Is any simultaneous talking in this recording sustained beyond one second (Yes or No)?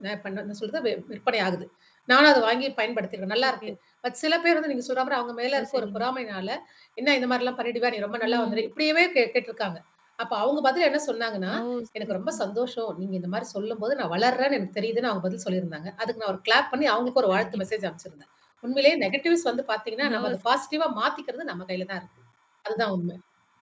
No